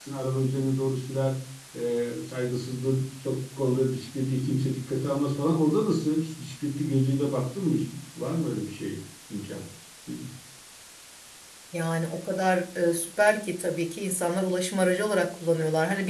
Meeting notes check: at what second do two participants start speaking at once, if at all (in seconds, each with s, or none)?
none